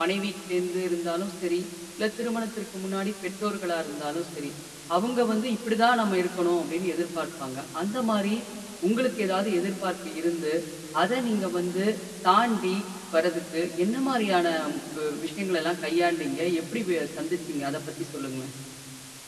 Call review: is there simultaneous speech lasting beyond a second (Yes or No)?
No